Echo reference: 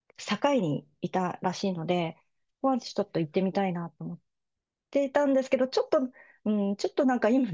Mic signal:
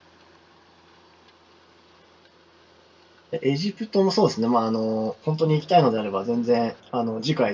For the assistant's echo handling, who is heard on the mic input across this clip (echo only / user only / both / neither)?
user only